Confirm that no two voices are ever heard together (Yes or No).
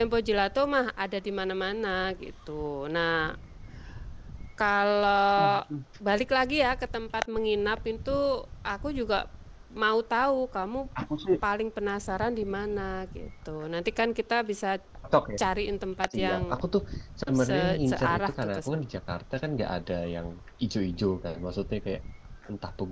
No